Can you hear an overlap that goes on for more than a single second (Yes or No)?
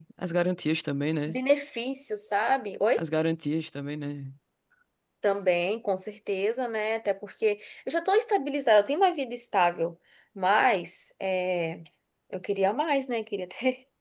No